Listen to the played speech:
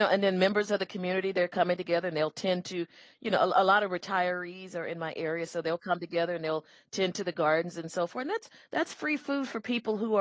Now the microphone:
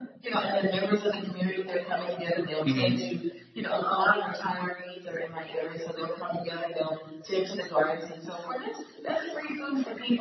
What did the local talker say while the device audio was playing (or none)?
Mhm.